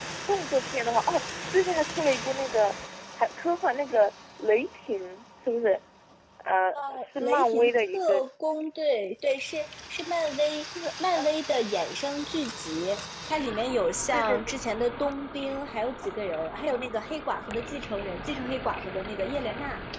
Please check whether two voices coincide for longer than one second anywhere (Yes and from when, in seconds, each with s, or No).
Yes, from 6.9 s